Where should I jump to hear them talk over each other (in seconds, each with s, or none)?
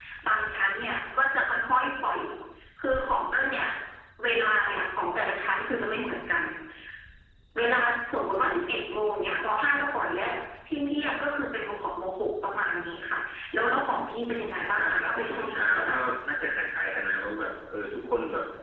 14.5 s